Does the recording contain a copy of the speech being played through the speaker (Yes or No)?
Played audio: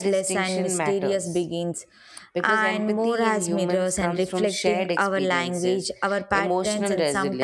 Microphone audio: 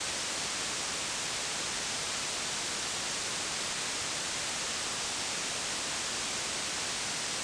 No